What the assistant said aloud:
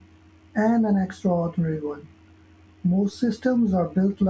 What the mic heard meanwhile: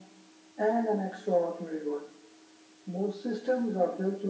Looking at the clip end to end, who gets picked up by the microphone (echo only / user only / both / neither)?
echo only